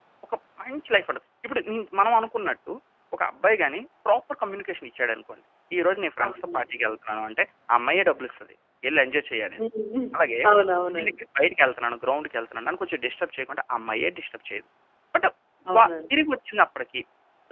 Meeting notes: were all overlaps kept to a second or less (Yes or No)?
Yes